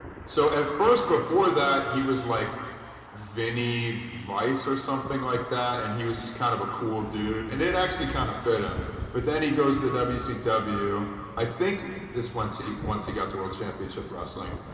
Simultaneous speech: No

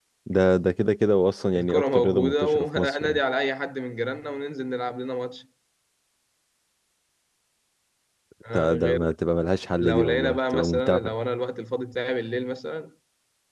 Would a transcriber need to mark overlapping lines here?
Yes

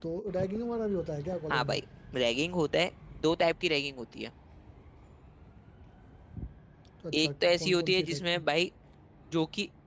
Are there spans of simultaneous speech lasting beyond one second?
Yes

